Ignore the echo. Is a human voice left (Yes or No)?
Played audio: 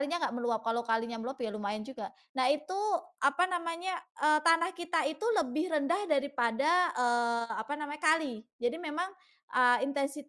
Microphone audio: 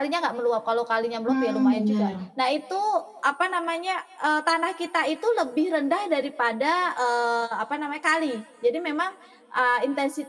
Yes